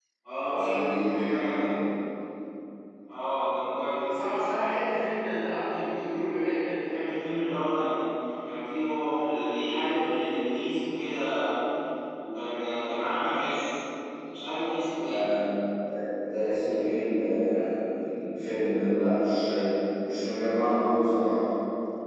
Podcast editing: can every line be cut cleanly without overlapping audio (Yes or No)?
No